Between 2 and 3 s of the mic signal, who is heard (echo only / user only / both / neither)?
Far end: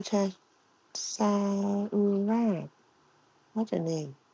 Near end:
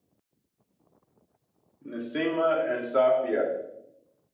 user only